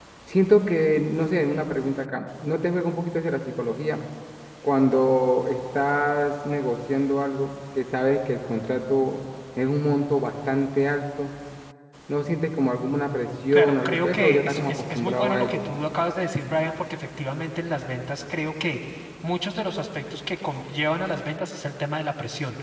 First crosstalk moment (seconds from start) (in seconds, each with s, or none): 13.5 s